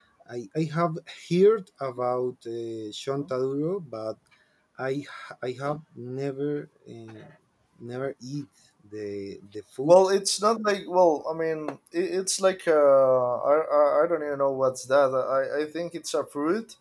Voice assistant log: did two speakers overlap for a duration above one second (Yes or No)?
No